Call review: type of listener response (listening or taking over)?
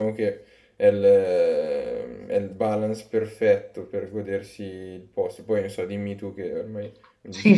taking over